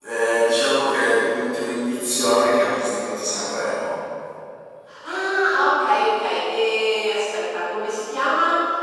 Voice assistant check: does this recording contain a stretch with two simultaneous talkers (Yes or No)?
No